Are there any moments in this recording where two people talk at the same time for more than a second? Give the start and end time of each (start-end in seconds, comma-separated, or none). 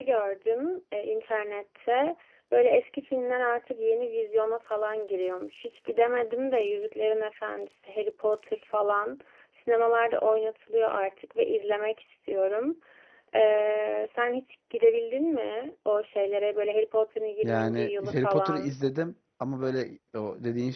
17.4-18.7